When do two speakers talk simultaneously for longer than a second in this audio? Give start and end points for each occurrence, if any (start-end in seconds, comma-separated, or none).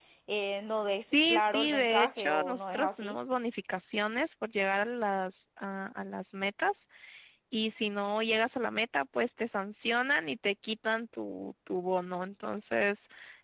1.1-3.2